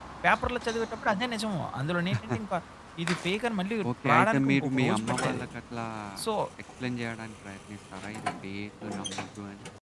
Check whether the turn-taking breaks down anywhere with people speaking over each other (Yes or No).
Yes